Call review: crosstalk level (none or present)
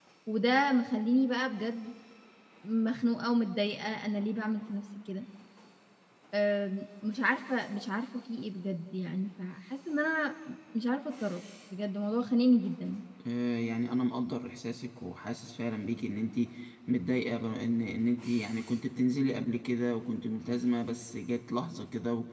none